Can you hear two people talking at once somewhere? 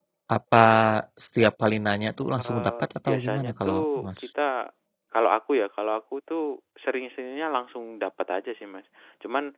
Yes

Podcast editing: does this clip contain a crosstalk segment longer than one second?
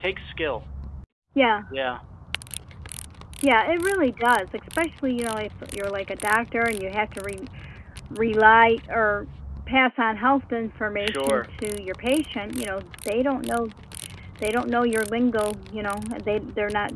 No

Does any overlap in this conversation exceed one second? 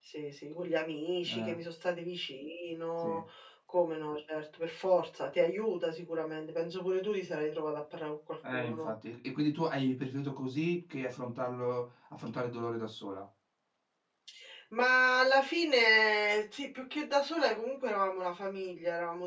No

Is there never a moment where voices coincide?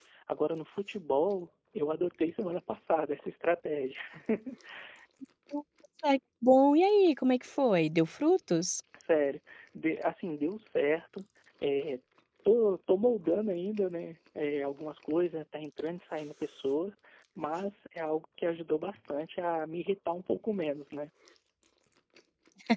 Yes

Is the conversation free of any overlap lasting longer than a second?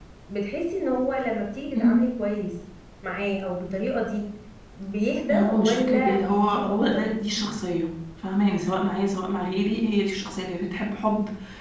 No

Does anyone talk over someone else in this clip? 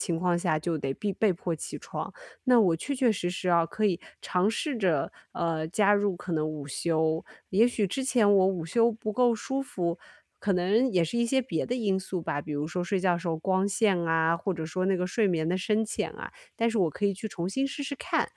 No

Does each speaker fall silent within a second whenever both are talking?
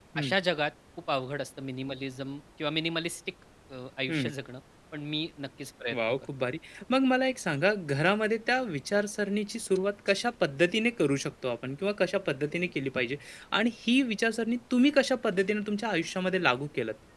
Yes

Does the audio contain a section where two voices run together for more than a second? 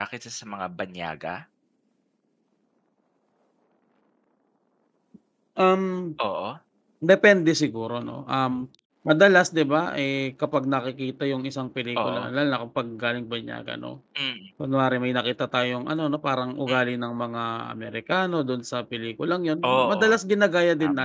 No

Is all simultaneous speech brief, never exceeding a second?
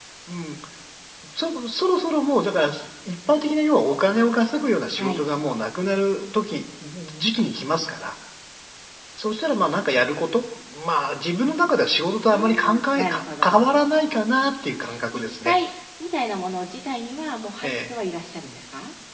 No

